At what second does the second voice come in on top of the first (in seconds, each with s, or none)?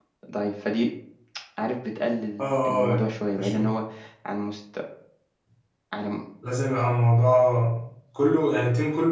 2.4 s